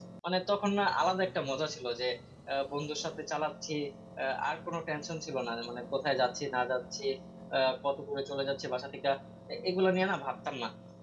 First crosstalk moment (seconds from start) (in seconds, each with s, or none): none